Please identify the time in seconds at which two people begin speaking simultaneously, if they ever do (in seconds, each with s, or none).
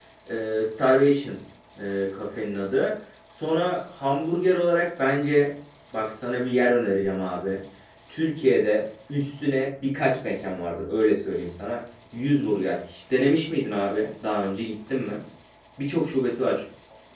none